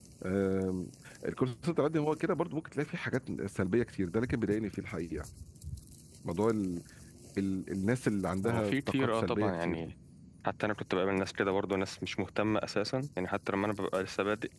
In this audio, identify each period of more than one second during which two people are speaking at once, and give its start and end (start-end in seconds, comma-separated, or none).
8.4-9.9